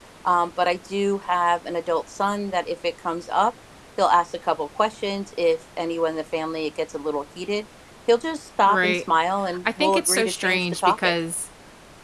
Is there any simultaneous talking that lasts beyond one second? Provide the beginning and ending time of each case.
9.7-11.1

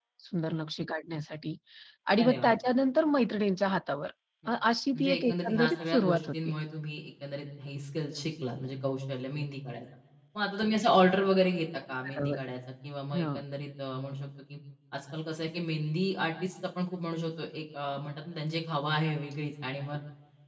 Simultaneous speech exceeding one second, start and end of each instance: 4.9-6.3

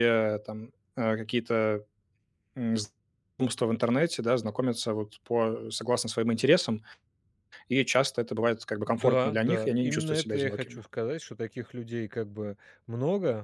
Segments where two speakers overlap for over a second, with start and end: 8.9-10.8

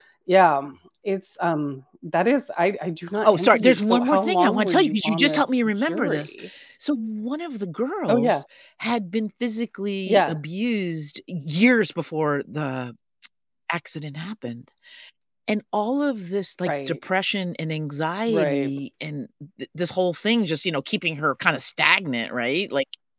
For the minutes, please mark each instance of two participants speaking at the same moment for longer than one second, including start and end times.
3.2-6.3

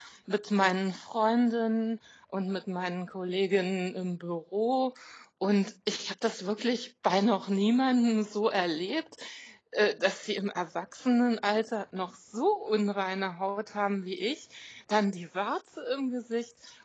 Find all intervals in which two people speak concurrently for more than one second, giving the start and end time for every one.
none

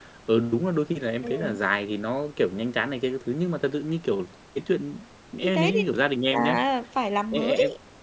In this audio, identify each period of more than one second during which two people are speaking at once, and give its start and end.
none

